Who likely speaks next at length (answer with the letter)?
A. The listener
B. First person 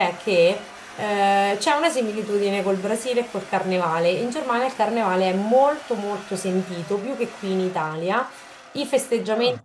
B